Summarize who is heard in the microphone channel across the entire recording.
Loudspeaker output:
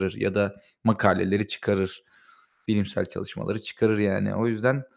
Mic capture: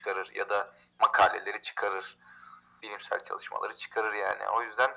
echo only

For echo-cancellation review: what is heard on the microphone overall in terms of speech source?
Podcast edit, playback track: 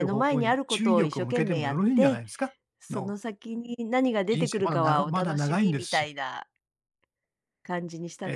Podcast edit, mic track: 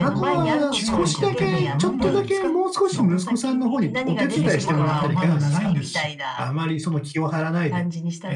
both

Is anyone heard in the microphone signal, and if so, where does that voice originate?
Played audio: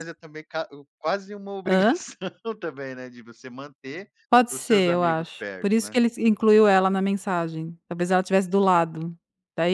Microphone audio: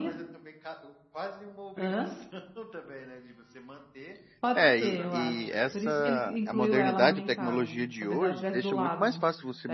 both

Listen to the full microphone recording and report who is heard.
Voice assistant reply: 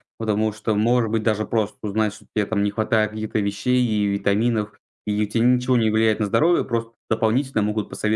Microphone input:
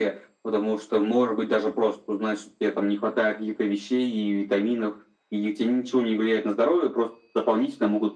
echo only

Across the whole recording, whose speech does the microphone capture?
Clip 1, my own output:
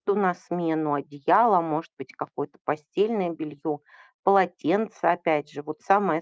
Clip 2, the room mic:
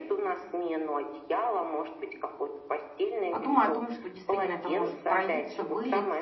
both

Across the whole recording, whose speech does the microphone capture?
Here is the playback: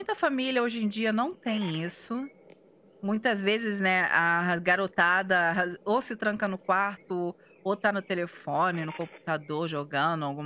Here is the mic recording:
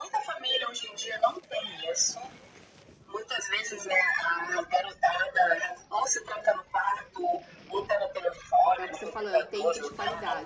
both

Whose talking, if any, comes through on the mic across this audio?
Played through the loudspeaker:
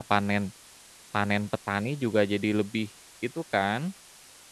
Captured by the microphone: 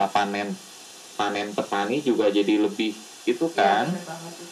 both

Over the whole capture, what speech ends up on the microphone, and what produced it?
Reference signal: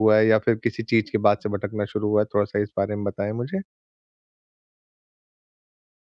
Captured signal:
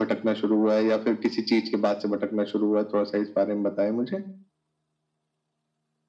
echo only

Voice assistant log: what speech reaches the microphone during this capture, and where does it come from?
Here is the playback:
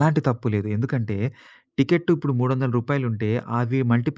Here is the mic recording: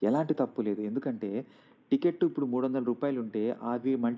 echo only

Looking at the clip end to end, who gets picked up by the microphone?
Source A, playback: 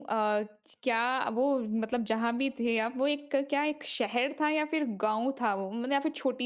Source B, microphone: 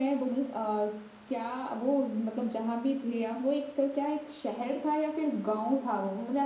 echo only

